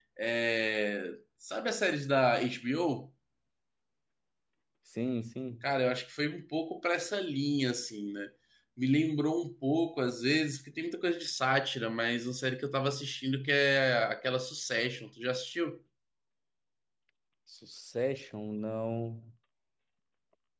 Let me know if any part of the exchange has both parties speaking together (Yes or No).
No